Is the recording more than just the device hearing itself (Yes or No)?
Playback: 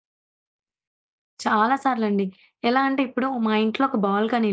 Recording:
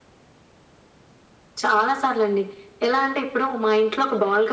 No